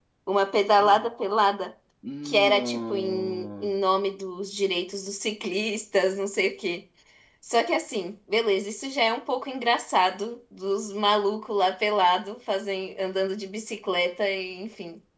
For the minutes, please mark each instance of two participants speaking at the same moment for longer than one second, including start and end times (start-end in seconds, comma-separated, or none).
2.2-3.7